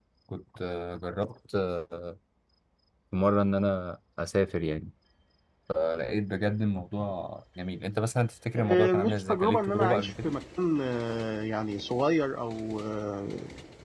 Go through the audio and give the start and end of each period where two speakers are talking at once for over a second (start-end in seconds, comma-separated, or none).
8.6-10.3